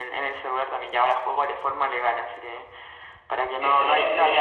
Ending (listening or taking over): listening